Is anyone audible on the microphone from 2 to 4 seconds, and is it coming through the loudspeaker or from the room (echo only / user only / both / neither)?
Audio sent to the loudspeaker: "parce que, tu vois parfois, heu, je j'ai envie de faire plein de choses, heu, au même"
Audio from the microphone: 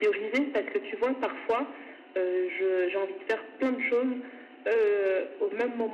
echo only